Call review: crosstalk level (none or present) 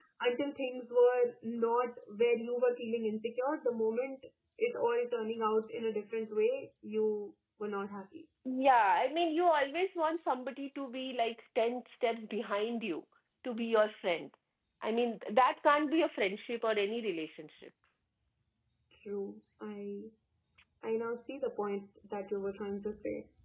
none